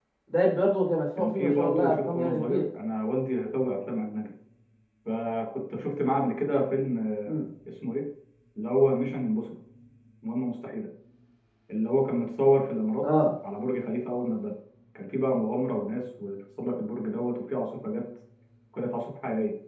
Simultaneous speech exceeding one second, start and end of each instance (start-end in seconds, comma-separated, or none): 1.2-2.6